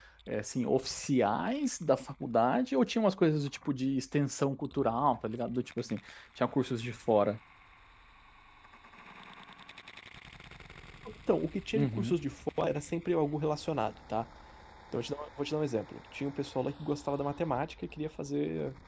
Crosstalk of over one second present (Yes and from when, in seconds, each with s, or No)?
No